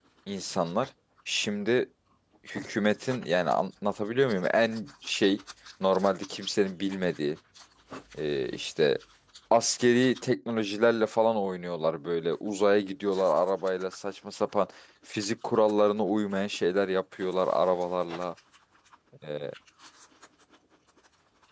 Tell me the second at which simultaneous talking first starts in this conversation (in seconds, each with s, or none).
none